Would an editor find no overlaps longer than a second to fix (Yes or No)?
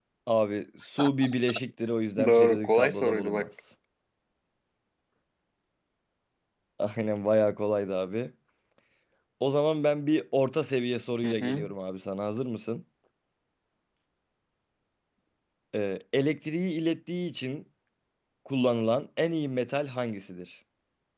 No